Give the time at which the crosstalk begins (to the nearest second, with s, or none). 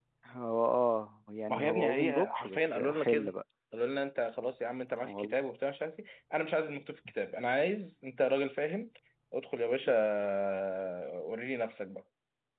1 s